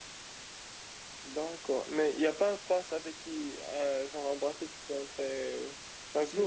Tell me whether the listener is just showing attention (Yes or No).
No